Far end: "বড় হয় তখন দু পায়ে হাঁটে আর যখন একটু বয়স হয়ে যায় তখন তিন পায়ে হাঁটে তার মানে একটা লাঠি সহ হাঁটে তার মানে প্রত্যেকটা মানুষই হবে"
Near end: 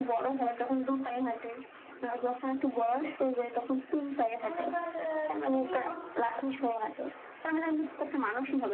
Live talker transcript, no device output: তাহলে এবার আহ, তুমি আমাকে না

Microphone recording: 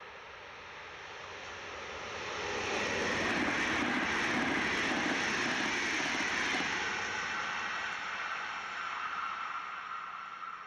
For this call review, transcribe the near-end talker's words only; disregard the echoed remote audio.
none

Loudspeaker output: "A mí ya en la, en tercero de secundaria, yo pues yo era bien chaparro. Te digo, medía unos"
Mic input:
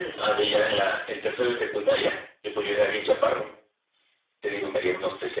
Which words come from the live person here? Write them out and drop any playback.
none

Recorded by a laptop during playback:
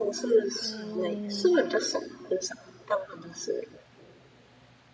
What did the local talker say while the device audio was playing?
嗯，

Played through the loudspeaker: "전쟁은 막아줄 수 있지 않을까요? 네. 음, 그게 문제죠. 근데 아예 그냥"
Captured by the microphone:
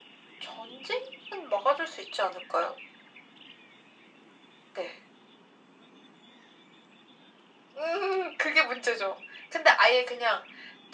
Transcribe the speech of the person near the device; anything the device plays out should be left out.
none

